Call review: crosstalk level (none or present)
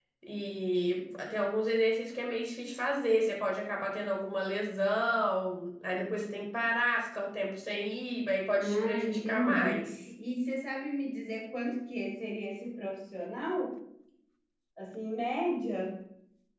present